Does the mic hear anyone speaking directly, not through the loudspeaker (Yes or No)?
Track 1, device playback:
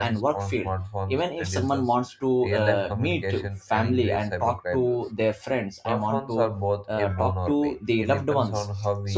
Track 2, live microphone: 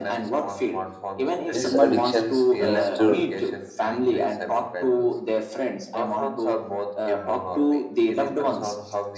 Yes